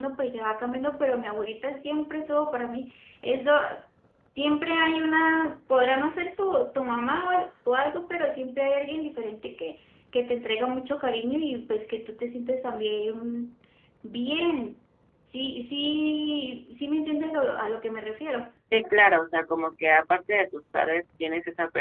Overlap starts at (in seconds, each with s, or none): none